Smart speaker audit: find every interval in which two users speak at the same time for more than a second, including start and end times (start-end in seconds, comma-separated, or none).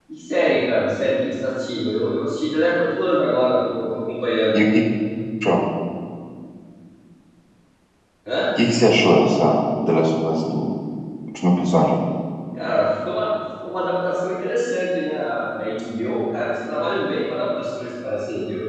none